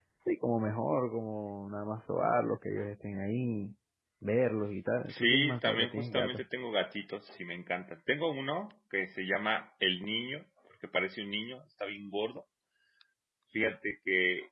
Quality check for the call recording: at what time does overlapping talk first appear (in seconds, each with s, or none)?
5.1 s